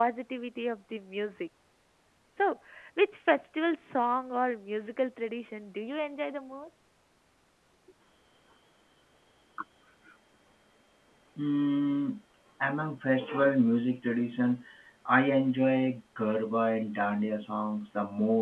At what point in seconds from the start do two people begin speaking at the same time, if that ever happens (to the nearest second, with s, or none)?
none